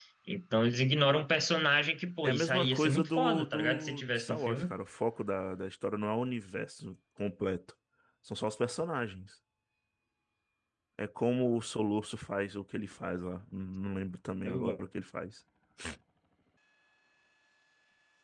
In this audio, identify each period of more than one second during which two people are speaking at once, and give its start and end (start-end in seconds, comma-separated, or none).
2.2-4.7